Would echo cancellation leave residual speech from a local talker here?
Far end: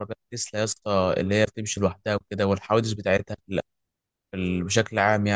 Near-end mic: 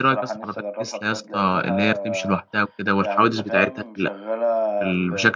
Yes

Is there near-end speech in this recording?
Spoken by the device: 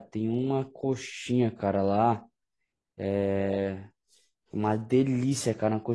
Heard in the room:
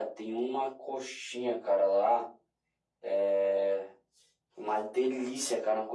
No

